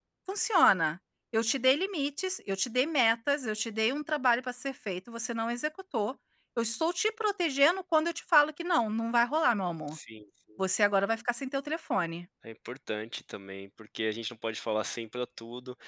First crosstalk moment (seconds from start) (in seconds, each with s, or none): none